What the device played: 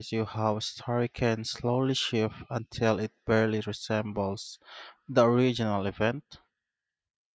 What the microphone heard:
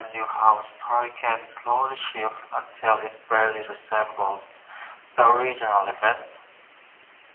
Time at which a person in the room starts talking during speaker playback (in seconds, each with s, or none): none